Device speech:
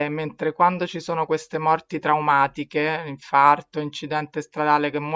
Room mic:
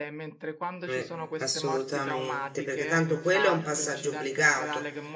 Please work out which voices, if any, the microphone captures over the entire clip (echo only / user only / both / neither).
both